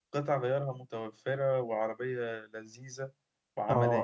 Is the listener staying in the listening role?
No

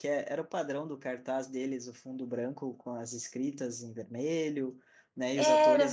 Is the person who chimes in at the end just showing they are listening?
Yes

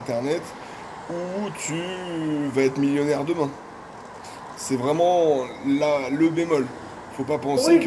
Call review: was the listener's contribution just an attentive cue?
No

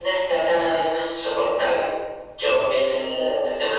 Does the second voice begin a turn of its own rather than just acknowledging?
No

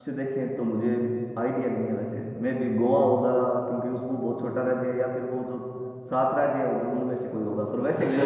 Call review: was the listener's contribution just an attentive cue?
No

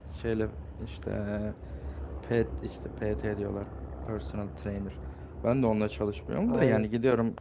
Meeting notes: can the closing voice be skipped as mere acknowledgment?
Yes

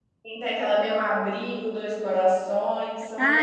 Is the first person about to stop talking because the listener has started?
Yes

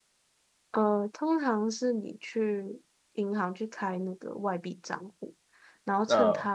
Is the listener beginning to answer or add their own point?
No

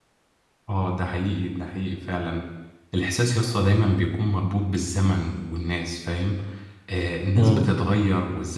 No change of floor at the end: Yes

